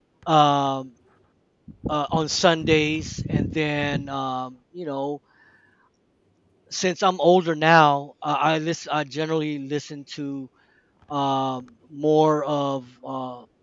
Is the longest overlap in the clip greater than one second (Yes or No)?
No